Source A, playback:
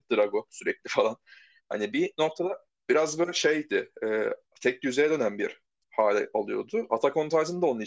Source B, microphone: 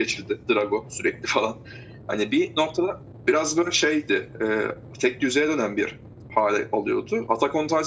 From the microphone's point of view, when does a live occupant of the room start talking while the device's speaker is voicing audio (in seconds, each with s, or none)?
none